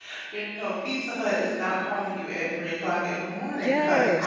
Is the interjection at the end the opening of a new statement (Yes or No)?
Yes